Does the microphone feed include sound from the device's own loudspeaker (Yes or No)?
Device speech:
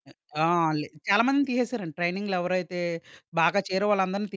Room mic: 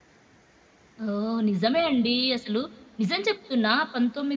No